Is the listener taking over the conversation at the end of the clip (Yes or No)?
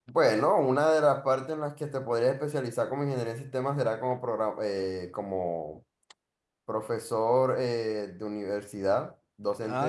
No